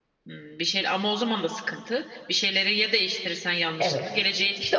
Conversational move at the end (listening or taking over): taking over